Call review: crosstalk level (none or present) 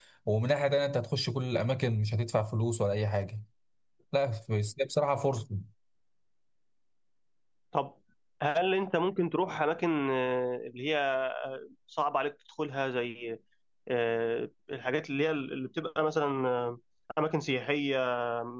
none